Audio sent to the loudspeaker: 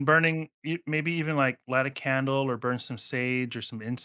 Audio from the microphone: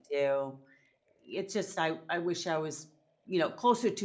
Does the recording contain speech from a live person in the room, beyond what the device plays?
Yes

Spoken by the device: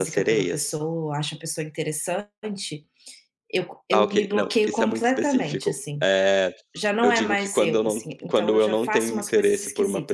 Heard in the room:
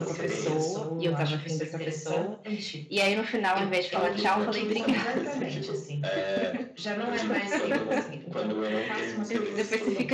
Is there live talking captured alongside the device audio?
Yes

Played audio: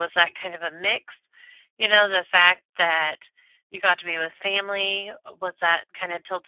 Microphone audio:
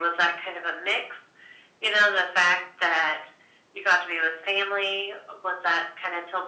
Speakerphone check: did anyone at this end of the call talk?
No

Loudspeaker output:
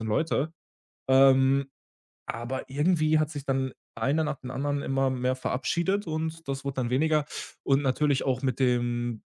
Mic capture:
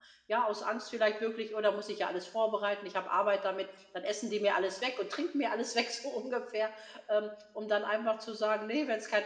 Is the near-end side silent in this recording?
No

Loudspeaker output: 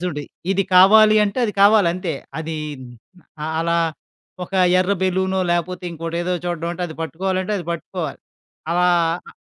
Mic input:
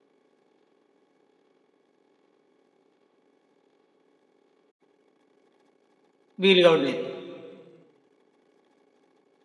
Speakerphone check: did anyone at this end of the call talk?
Yes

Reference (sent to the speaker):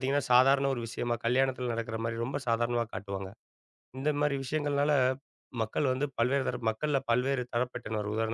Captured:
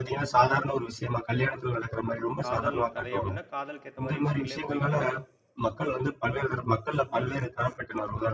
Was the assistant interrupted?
Yes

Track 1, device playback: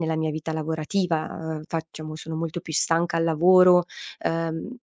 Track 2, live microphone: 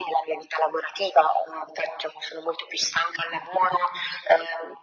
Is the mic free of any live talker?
Yes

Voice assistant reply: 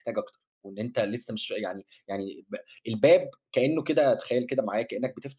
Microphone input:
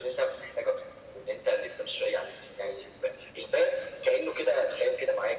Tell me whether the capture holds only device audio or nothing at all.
Yes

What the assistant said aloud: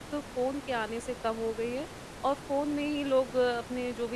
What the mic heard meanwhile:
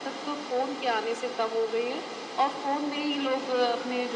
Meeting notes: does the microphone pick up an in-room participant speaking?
No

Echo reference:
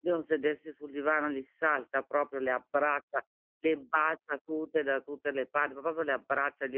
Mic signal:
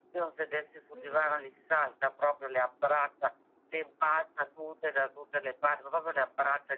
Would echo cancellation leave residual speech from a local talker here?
Yes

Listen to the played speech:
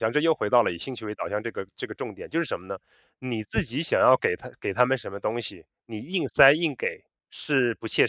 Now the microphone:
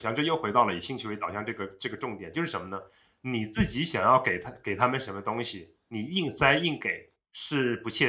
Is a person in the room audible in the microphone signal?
No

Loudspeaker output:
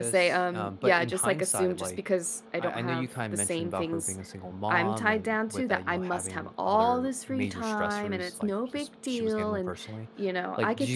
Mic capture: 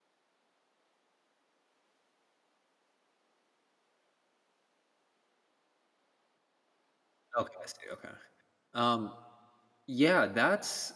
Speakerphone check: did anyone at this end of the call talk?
Yes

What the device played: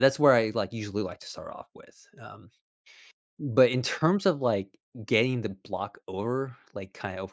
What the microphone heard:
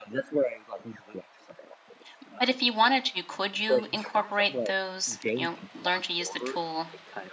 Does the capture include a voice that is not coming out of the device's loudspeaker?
Yes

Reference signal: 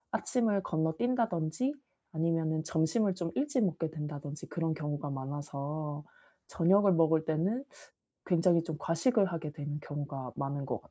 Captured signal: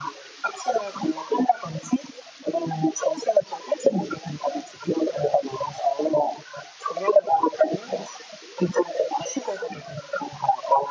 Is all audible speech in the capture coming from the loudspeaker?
Yes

